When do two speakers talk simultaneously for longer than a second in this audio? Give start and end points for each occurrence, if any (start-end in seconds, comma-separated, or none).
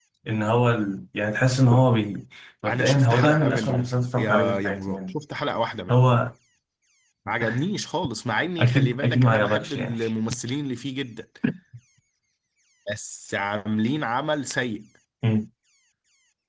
2.7-5.1, 8.6-9.9